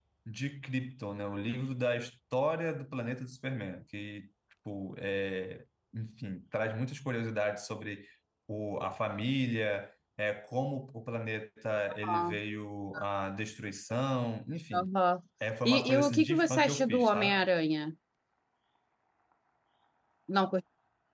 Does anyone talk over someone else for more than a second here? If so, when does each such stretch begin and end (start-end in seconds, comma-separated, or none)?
15.6-17.4